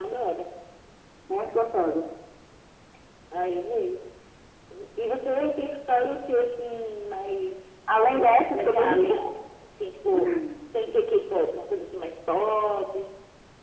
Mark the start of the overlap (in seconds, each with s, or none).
8.1 s